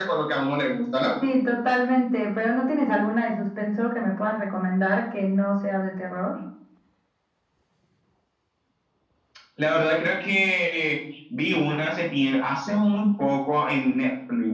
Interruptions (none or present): none